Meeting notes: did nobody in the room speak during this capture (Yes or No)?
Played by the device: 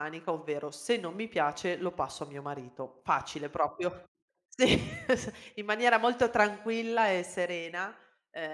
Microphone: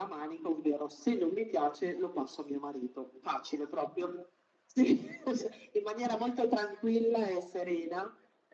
Yes